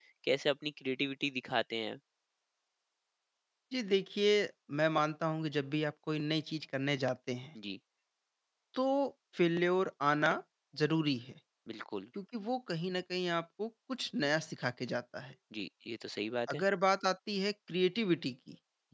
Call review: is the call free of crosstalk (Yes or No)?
Yes